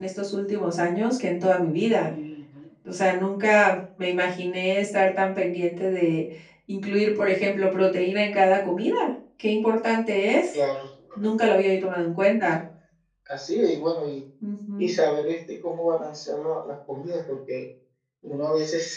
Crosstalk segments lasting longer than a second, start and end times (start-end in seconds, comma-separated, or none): none